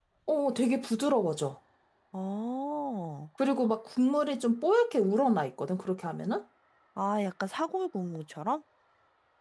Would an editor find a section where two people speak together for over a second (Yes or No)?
No